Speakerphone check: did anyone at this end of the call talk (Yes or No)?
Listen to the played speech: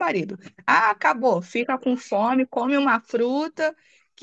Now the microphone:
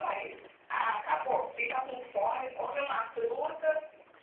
Yes